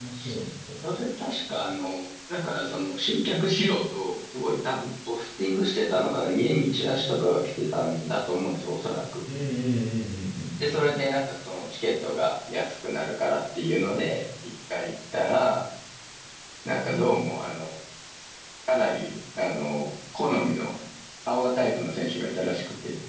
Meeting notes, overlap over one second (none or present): none